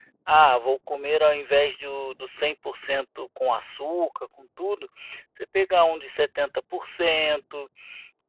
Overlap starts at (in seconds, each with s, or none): none